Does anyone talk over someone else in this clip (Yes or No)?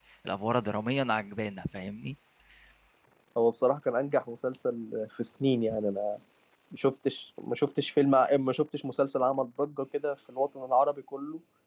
No